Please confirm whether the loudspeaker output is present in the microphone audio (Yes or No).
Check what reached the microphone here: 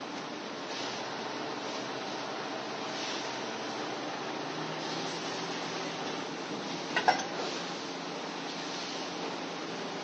No